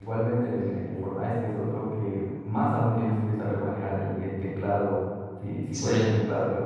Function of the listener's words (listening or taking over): listening